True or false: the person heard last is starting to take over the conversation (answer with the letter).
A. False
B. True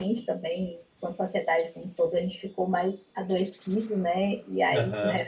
A